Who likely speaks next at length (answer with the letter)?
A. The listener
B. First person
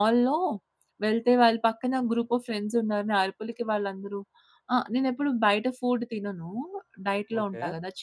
B